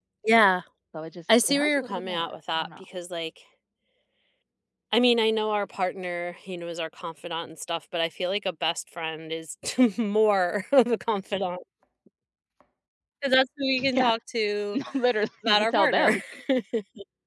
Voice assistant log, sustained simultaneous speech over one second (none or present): present